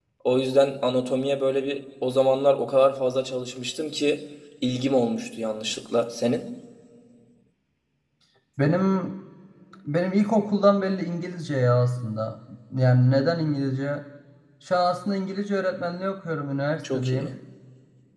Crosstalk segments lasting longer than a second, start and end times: none

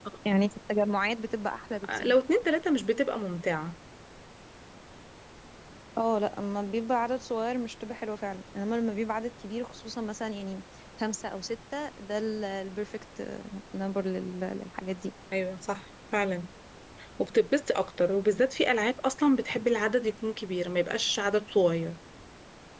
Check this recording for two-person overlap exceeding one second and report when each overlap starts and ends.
none

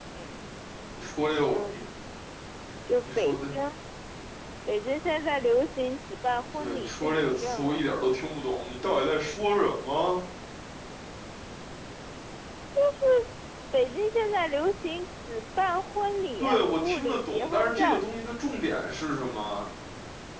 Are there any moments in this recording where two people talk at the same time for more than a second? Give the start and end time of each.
6.6-7.9, 16.4-18.1

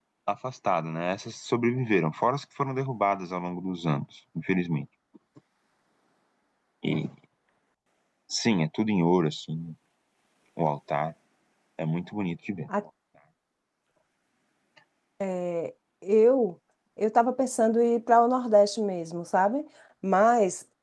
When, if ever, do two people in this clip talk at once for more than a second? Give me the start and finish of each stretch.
none

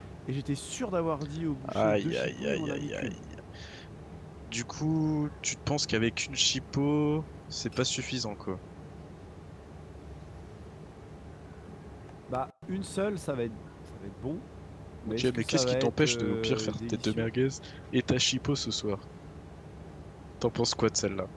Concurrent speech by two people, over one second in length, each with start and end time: 1.6-3.2, 15.1-17.3

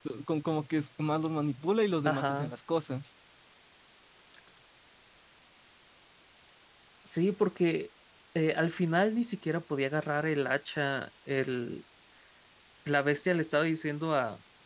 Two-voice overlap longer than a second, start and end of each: none

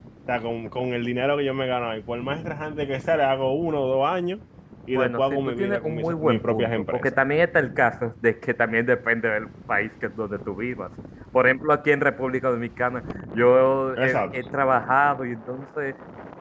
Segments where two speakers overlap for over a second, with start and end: 4.9-7.2

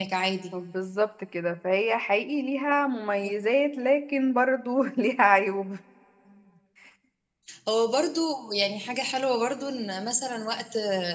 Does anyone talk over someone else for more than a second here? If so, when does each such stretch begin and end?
none

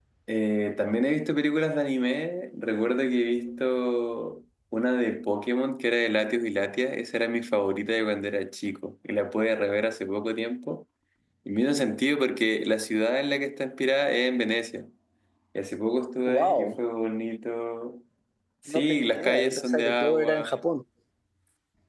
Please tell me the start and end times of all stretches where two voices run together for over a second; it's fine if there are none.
18.7-20.5

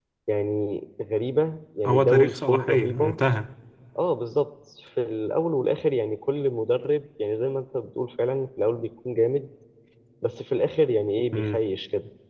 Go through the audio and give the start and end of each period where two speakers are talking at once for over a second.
1.8-3.2

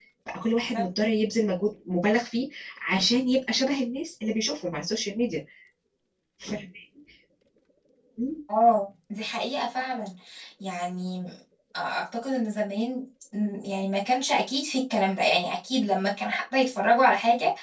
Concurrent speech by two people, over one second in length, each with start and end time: none

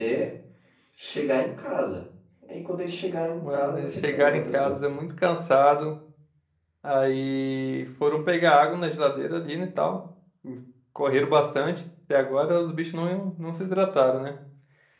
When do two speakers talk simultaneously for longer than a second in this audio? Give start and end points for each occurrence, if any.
3.5-4.8

